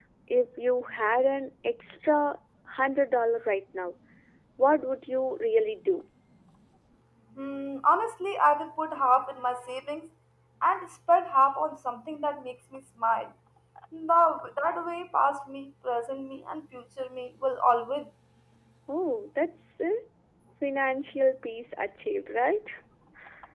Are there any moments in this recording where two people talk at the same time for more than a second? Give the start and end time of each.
none

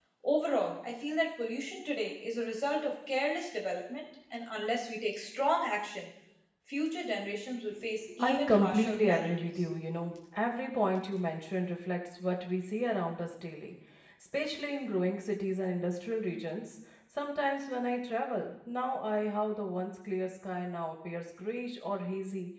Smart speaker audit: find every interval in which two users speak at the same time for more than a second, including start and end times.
8.2-9.4

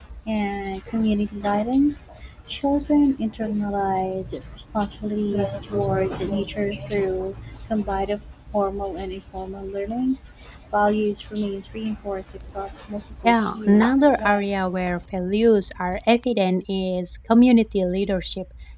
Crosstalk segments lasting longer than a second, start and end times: 13.2-14.4

